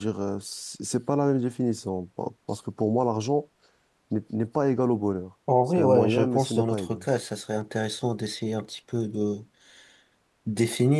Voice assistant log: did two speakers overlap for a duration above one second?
Yes, from 5.5 s

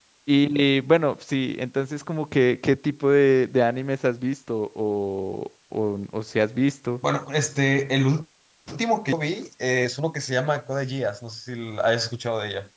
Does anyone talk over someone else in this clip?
No

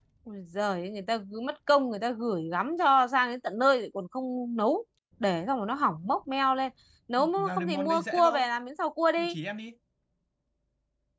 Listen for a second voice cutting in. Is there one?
Yes, from 7.2 s

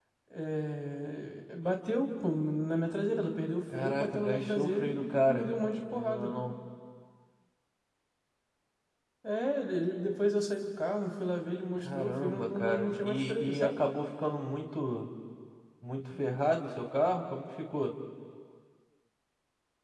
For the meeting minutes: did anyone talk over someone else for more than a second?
Yes, from 3.7 s

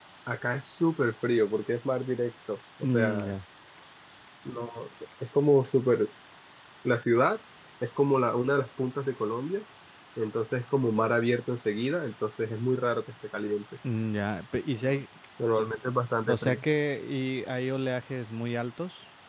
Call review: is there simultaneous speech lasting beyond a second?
No

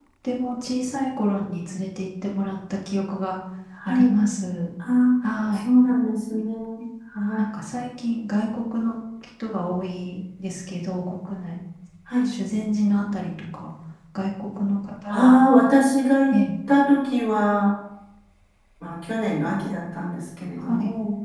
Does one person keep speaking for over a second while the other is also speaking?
No

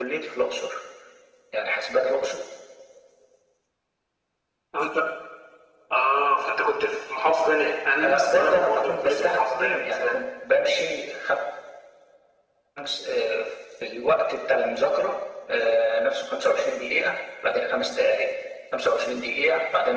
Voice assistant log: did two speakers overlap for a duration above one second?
Yes, from 8.0 s

